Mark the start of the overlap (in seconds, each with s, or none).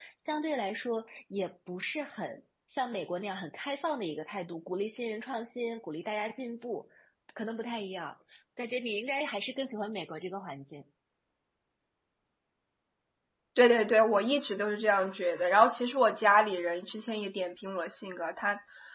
none